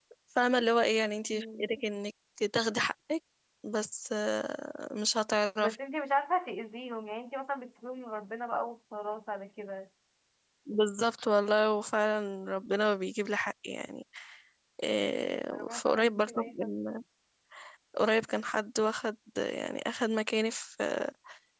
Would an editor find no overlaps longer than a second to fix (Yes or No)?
No